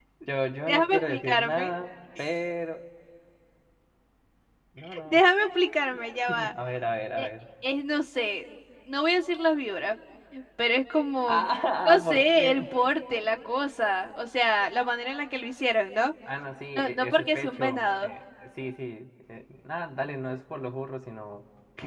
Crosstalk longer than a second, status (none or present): present